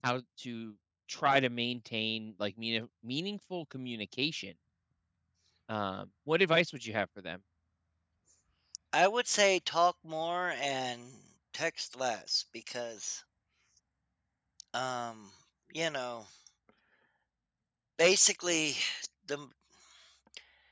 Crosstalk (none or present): none